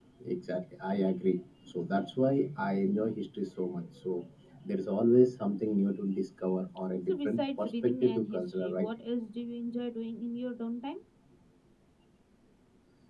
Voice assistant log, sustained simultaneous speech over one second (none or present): present